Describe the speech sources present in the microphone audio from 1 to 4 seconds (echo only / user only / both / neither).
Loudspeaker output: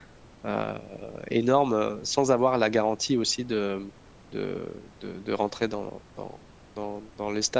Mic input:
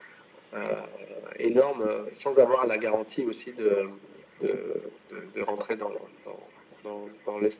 echo only